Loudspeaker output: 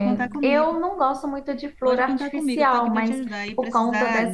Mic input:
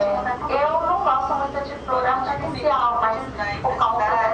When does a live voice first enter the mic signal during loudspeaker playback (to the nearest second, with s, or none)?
none